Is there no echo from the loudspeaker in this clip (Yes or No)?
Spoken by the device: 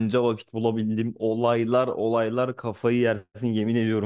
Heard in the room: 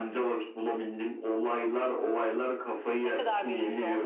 No